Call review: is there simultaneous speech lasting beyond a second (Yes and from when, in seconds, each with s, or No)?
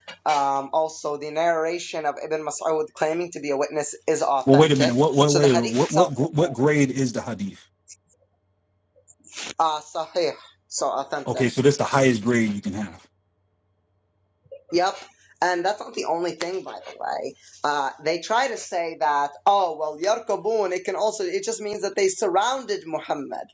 Yes, from 4.5 s